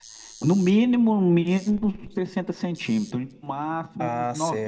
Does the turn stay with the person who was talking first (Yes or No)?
No